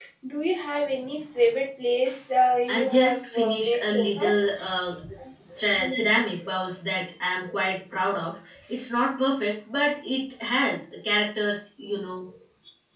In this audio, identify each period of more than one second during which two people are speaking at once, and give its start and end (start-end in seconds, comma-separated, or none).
2.7-4.3